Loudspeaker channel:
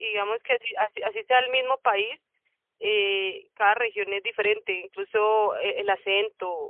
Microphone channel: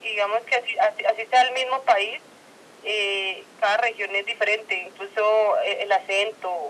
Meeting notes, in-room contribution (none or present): none